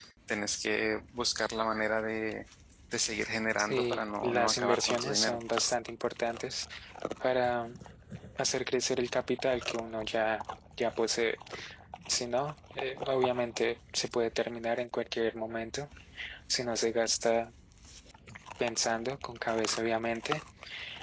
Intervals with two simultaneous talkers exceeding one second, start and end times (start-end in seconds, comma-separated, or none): 3.6-5.4